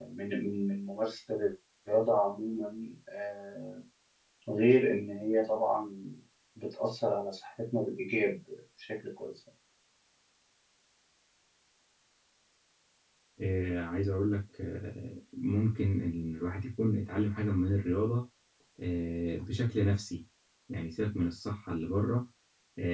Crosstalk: none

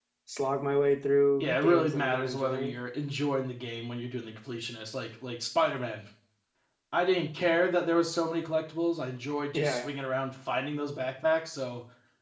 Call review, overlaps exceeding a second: present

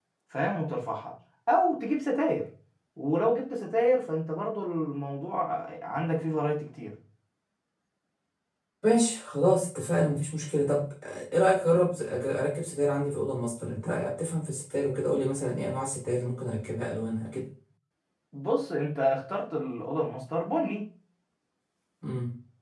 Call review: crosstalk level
none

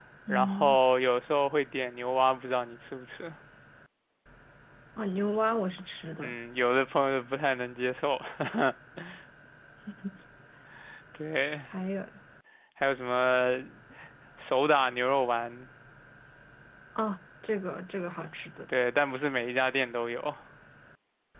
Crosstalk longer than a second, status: none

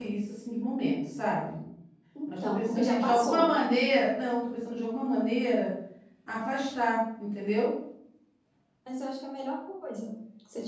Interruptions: present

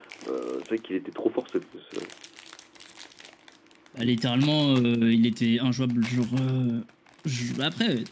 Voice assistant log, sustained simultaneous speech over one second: none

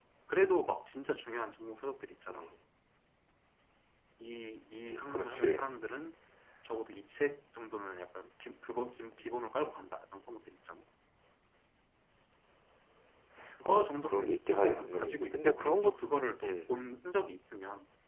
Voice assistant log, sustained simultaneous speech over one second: present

